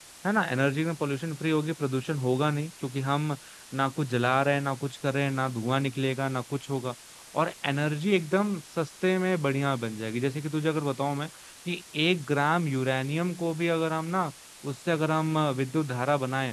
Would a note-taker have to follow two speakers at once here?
No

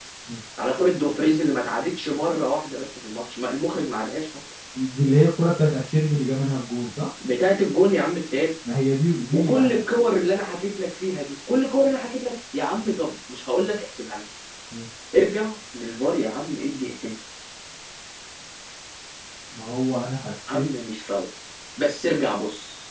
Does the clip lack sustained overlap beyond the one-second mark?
Yes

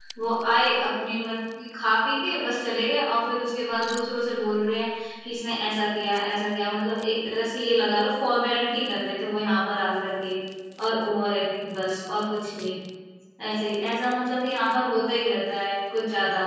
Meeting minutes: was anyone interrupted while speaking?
No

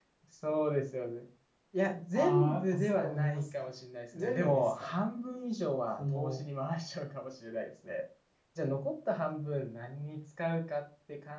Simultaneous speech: Yes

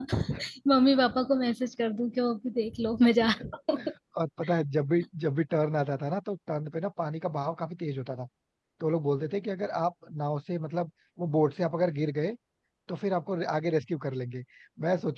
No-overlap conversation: Yes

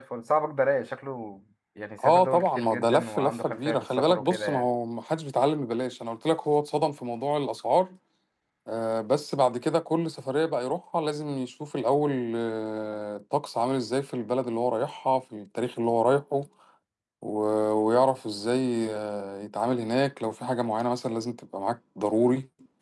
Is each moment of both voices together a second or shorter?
No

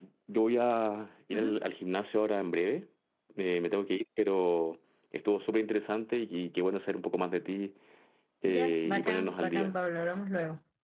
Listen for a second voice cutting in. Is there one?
Yes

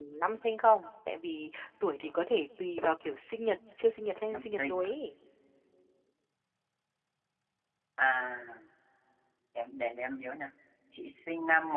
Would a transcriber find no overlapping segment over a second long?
Yes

